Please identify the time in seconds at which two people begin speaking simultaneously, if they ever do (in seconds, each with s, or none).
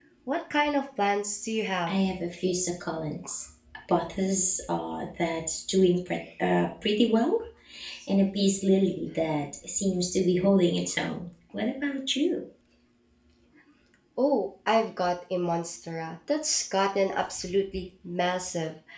none